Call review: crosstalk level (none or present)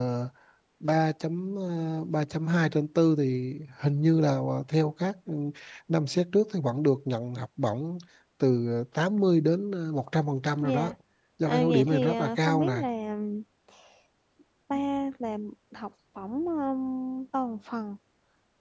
present